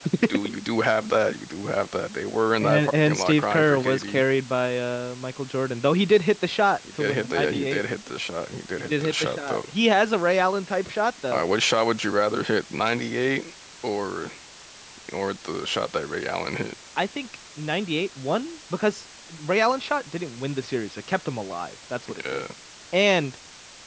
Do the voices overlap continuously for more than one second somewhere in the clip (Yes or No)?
Yes